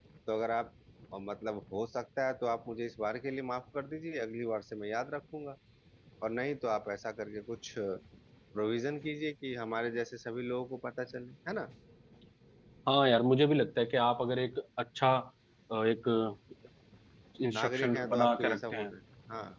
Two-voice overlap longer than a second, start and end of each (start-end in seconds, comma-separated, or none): 17.6-18.9